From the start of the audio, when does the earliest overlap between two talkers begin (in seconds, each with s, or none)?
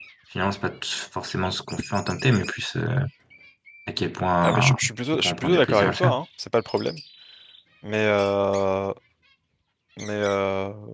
4.4 s